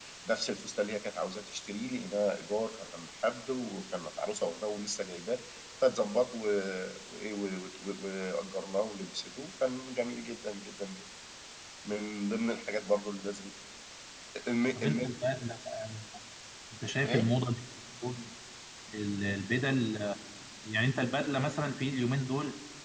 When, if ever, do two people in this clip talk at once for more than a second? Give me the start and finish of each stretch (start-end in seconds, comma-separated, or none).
none